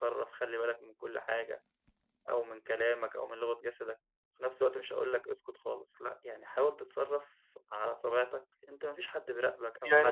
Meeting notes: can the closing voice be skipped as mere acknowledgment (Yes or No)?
No